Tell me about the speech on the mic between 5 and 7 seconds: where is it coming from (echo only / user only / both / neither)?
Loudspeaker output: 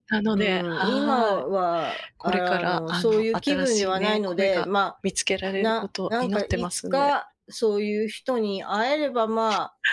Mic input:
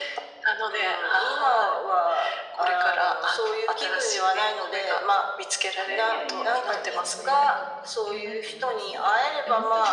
both